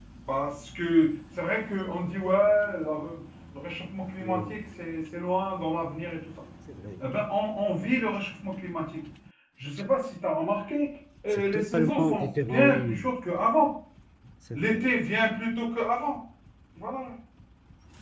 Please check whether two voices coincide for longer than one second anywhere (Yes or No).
Yes